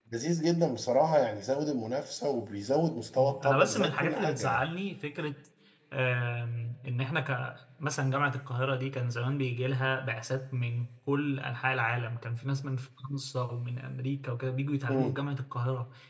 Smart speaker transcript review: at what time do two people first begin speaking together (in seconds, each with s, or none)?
3.2 s